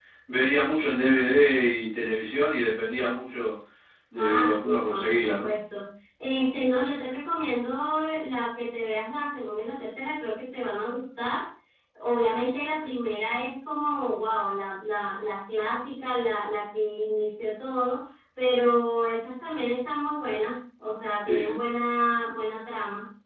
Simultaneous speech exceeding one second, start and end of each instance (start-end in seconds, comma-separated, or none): 4.2-5.5